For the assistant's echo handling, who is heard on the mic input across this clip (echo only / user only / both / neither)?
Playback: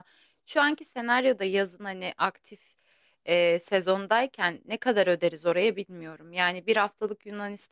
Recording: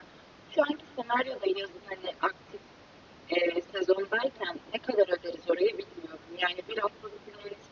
echo only